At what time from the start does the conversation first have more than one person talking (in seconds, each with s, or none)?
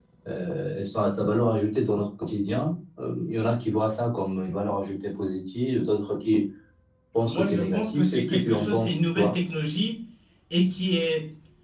7.2 s